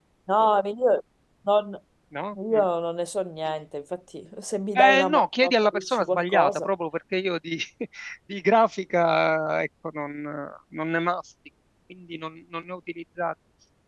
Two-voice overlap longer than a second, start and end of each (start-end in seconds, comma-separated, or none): 4.8-6.7